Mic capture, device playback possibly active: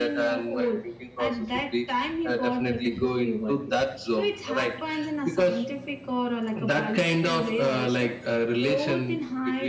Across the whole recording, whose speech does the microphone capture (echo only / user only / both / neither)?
echo only